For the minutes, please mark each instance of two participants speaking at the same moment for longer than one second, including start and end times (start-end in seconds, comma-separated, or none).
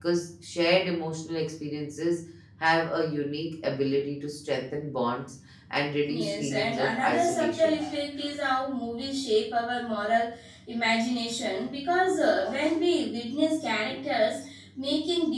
6.1-7.8